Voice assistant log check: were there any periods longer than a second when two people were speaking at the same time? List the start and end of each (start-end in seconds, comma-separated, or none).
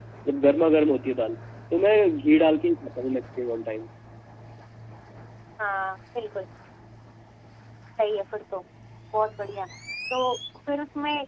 none